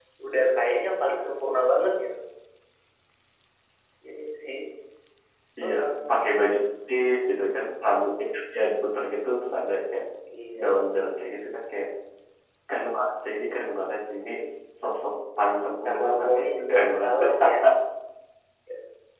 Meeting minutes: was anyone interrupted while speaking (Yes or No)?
Yes